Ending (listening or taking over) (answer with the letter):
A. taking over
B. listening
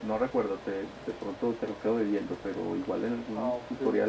B